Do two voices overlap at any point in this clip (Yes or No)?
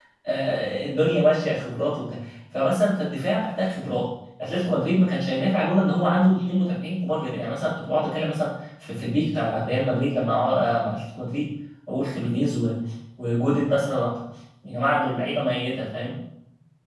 No